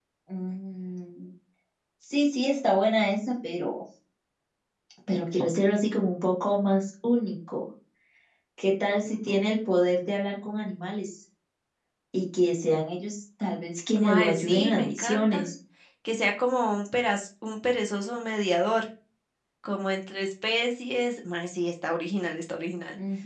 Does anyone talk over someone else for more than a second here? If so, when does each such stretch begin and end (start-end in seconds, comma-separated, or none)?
14.0-15.5